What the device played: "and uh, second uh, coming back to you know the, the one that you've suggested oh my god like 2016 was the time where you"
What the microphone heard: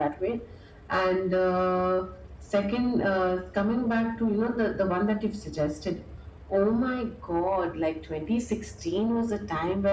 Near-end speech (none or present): none